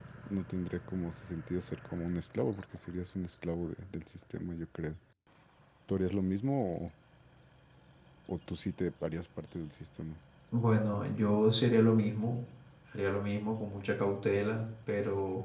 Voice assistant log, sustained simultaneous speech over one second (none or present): none